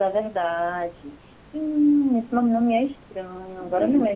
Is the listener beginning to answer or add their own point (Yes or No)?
No